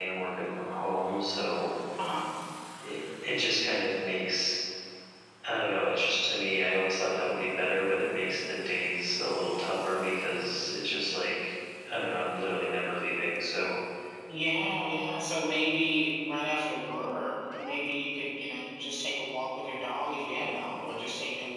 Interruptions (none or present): none